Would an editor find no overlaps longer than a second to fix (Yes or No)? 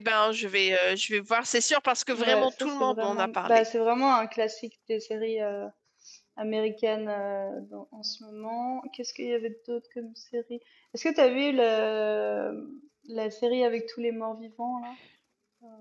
No